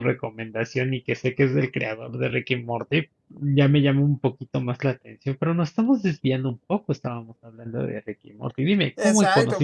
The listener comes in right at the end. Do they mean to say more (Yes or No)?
Yes